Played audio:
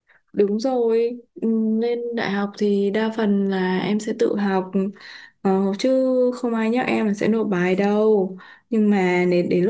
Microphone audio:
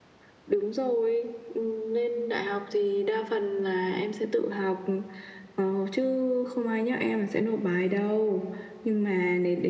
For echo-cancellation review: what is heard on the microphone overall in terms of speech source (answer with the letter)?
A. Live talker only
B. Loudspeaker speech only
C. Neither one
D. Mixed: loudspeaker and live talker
B